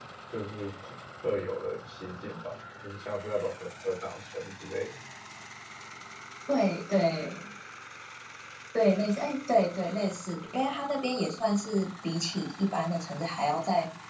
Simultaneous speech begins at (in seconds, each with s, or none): none